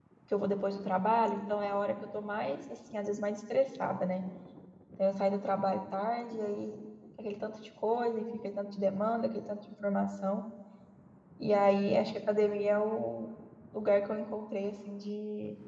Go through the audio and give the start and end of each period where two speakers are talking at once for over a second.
none

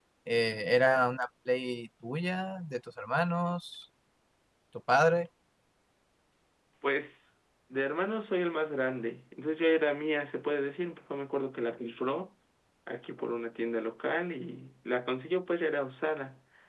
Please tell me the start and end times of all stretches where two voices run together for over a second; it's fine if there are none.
none

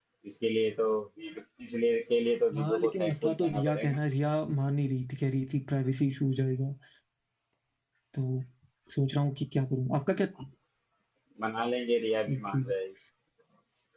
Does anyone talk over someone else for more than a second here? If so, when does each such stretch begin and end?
2.5-4.0

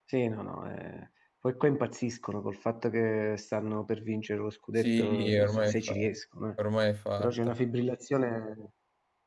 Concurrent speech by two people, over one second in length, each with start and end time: 4.8-6.1

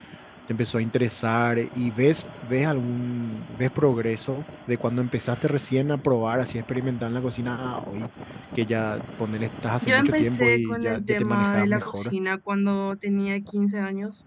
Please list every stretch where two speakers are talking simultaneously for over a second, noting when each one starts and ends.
9.8-12.1

